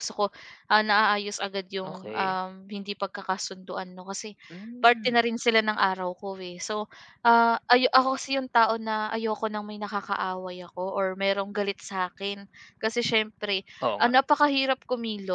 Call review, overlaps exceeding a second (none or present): none